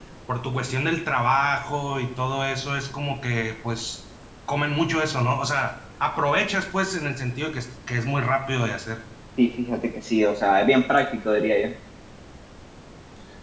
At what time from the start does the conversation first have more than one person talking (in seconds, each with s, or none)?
none